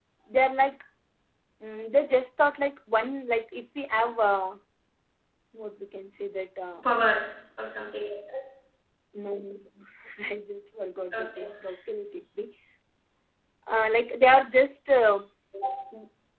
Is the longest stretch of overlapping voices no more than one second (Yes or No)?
Yes